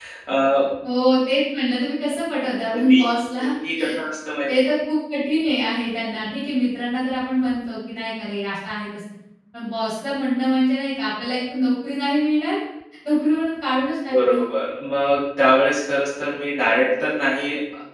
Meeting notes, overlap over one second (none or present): none